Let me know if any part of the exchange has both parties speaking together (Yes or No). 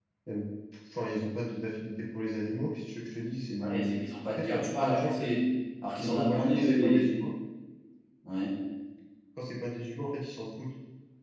Yes